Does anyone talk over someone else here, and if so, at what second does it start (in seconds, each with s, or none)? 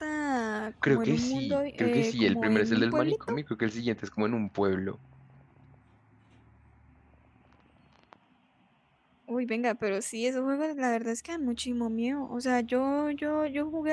0.8 s